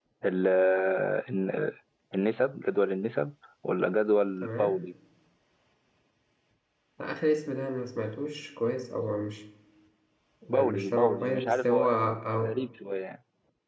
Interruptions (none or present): present